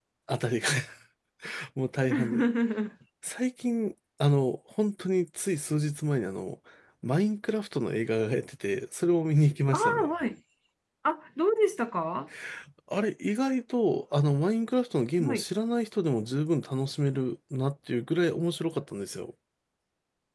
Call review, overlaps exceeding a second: none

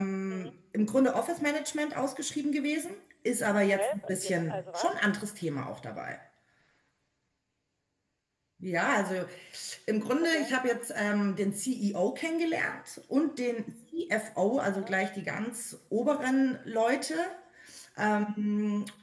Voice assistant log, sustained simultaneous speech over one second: present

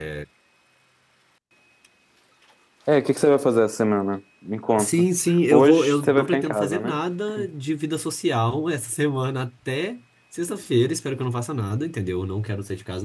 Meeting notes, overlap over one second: present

